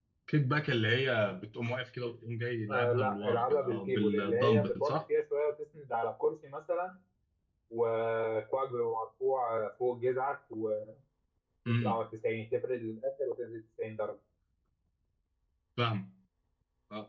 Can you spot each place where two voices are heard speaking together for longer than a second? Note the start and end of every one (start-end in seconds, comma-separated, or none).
2.7-4.9